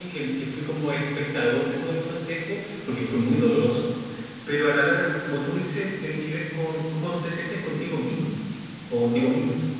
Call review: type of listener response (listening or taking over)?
taking over